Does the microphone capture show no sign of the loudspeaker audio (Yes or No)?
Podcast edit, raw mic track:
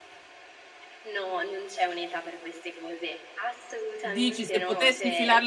No